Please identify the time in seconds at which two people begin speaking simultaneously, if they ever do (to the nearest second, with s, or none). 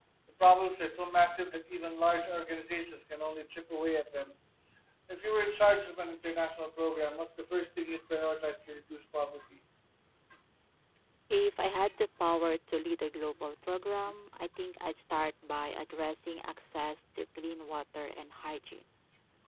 none